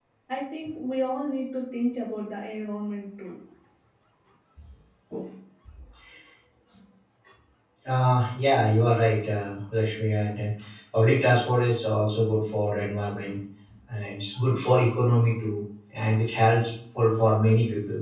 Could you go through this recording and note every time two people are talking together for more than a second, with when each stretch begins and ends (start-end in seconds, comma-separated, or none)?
none